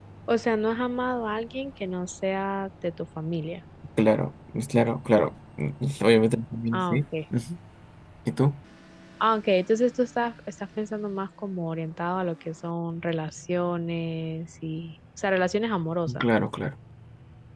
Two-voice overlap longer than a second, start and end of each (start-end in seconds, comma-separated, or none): none